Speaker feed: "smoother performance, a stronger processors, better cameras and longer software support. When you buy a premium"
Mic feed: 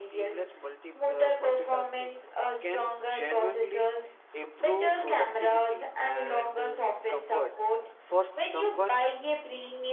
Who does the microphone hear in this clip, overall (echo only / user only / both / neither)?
both